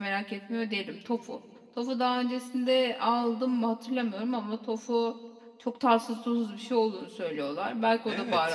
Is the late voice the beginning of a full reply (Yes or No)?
Yes